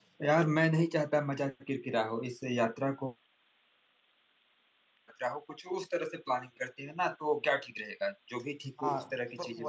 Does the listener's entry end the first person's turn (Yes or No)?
Yes